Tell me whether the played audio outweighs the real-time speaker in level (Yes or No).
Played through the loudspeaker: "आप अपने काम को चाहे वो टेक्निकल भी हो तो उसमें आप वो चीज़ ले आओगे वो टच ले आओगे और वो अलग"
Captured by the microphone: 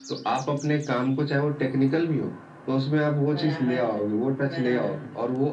Yes